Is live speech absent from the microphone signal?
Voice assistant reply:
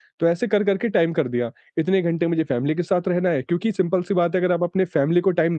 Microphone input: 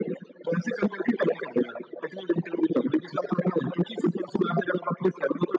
Yes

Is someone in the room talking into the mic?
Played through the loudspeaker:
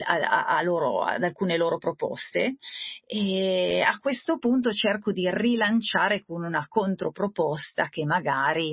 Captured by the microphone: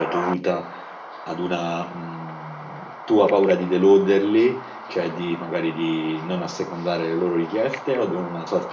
Yes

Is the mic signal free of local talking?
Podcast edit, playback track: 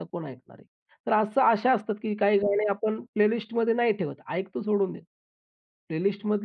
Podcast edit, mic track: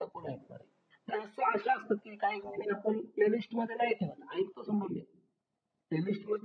Yes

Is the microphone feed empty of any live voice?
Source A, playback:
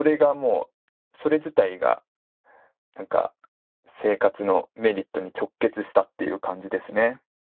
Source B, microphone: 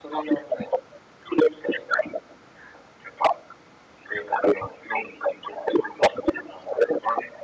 Yes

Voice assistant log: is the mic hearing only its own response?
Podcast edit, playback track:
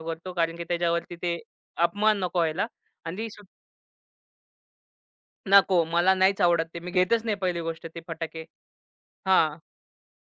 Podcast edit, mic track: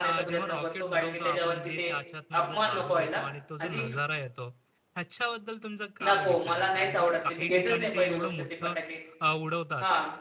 No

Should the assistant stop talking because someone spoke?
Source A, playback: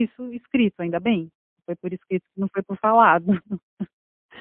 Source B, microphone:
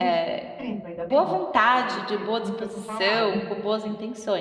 Yes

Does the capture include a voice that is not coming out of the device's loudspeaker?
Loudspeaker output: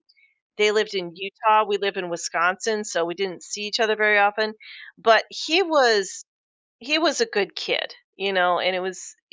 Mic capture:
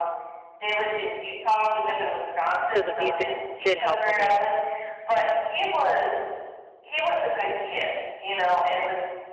Yes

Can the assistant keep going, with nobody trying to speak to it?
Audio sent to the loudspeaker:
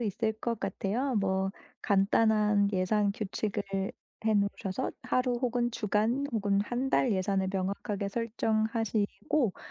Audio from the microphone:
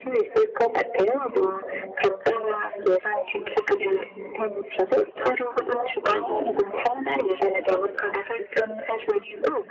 No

